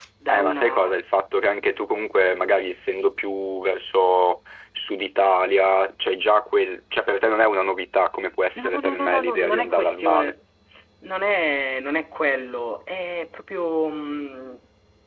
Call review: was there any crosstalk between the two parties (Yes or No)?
Yes